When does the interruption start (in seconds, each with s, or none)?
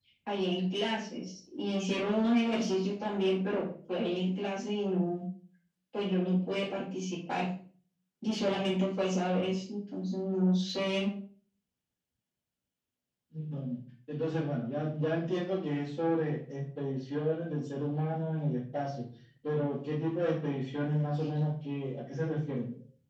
none